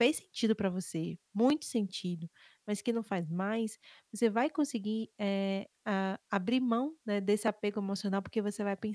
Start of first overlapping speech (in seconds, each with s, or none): none